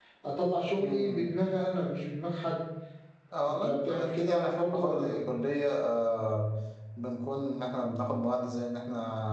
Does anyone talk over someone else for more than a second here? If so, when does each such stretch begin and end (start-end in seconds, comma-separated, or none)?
3.5-5.2